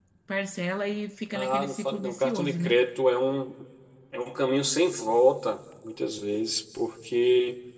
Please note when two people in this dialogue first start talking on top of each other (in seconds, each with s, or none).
1.3 s